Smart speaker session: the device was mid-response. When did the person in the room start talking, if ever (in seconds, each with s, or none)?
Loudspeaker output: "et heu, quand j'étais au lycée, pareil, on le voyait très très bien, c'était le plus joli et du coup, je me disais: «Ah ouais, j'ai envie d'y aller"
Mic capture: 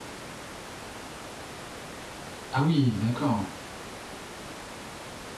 2.5 s